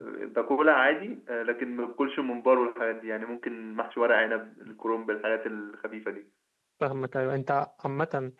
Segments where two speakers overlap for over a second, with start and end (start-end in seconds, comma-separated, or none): none